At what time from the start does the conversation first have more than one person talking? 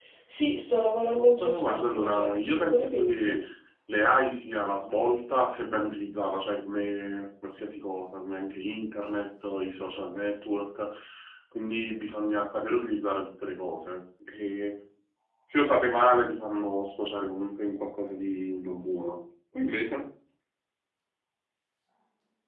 1 s

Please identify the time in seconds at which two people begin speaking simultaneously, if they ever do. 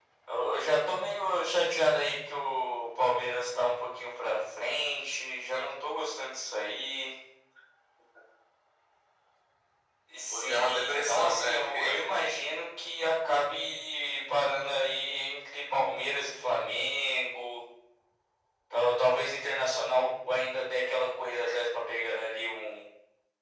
10 s

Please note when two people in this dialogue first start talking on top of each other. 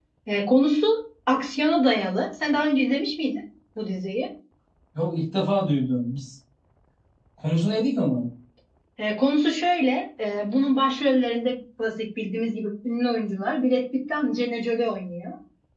none

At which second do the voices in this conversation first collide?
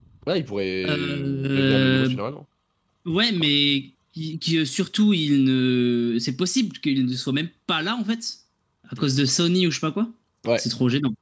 1 s

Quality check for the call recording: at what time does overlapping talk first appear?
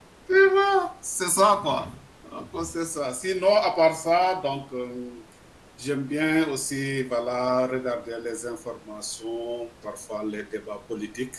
none

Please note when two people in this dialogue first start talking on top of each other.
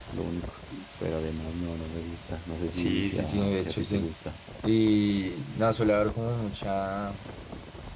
3 s

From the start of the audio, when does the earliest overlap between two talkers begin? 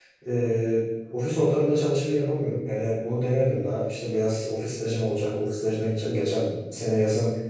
none

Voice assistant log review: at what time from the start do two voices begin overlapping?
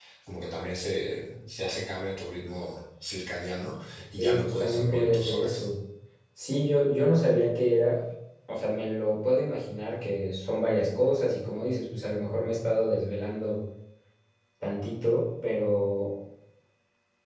4 s

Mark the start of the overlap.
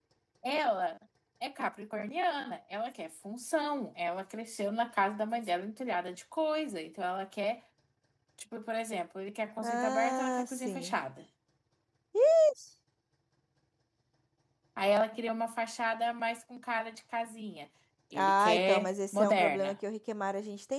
10 s

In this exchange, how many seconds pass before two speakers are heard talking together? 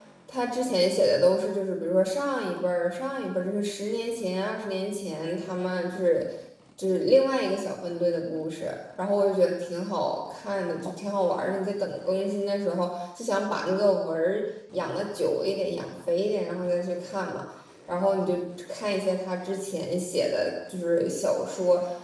none

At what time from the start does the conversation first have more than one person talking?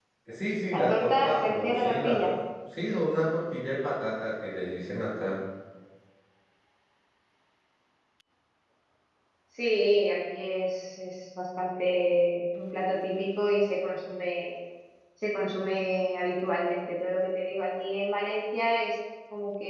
1 s

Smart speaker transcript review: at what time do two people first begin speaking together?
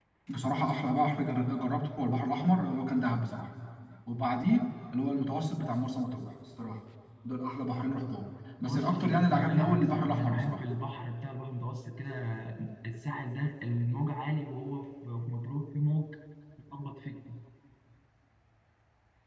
9 s

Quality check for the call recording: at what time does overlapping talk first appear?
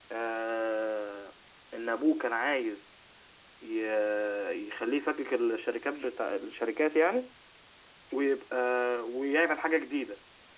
none

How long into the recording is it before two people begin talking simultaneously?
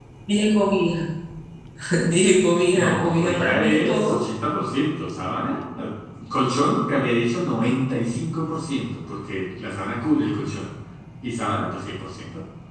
3 s

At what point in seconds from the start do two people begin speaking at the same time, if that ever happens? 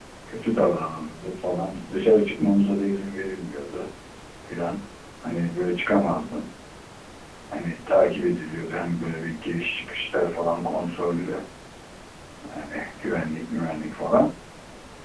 none

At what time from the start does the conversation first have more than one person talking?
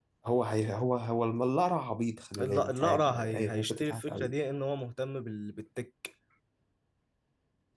2 s

